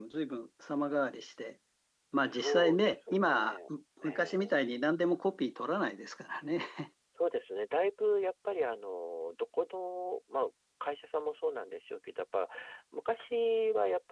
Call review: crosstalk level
present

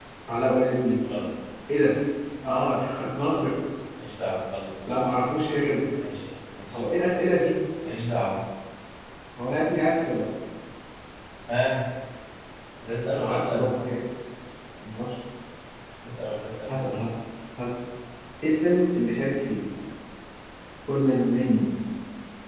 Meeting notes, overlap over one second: none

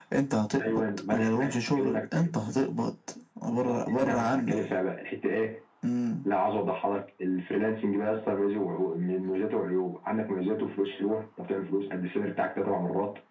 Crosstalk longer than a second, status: present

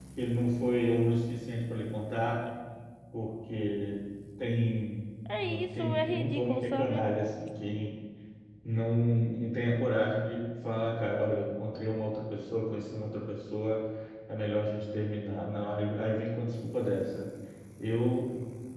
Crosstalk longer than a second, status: present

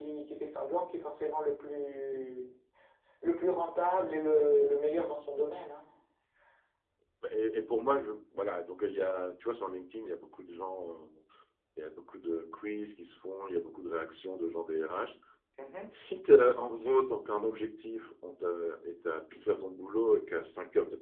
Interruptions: none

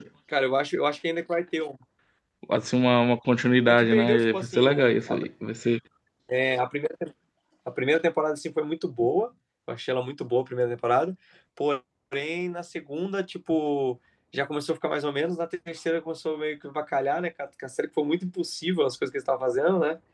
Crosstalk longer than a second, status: present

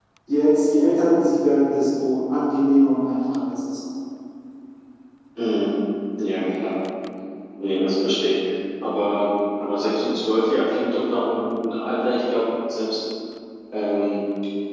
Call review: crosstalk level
none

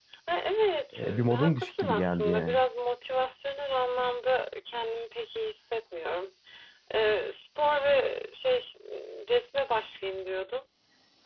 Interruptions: present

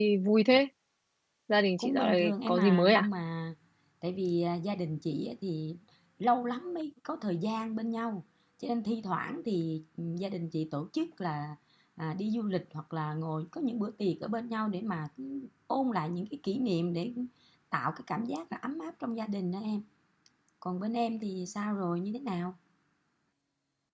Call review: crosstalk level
present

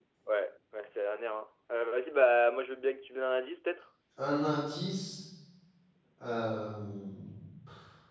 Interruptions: none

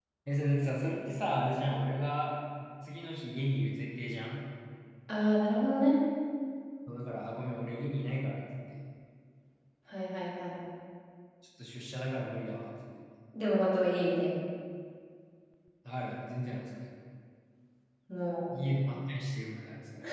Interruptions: none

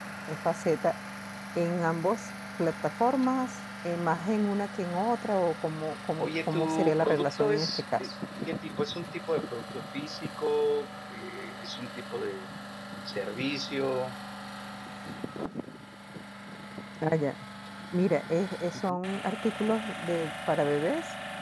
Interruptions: present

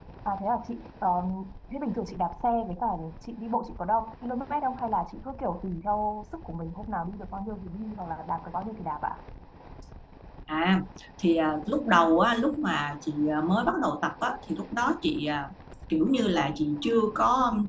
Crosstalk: none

